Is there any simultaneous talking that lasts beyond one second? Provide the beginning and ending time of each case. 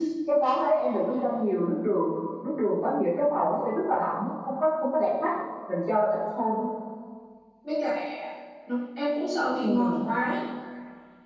none

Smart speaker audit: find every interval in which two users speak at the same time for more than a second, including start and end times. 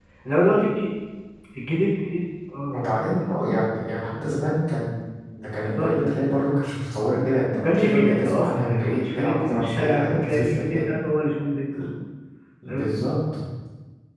7.5-10.8

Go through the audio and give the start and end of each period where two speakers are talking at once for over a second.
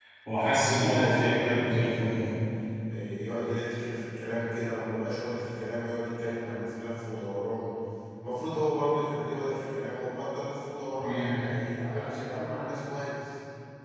0.6-2.2

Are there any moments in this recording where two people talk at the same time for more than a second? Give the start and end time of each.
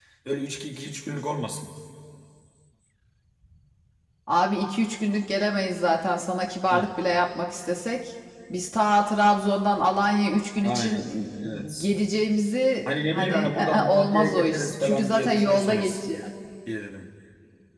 12.9-16.0

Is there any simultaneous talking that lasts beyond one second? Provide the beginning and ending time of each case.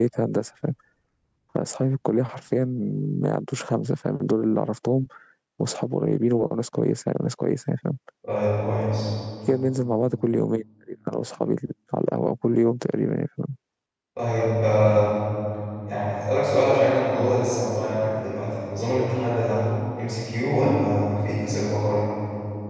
none

